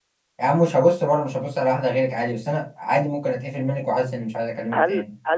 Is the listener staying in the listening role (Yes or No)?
No